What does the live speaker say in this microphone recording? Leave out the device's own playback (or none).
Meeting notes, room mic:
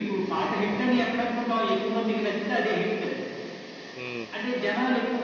హ్మ్.